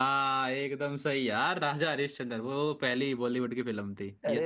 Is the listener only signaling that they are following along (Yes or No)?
No